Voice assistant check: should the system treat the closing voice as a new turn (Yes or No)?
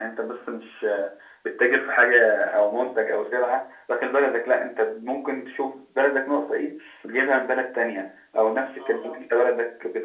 No